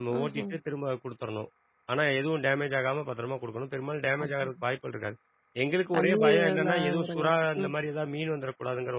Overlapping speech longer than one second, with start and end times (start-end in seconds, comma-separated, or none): 5.9-7.7